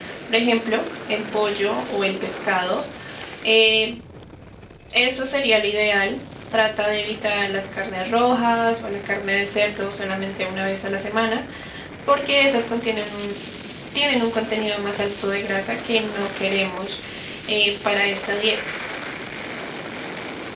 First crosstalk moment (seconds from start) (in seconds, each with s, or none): none